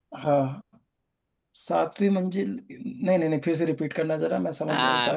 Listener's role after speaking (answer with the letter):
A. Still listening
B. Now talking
B